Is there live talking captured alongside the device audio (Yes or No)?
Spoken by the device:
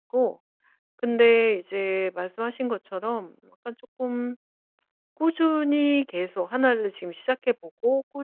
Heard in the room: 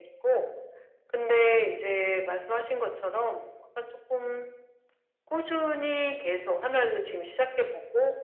No